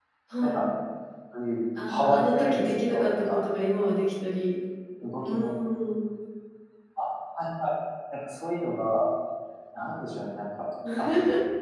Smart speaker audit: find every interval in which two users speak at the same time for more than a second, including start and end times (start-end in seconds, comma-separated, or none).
1.9-3.4